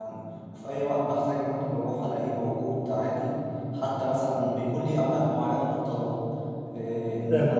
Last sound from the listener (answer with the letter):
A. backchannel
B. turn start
A